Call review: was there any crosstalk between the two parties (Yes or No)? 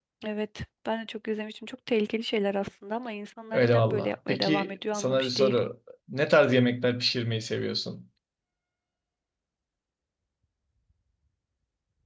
Yes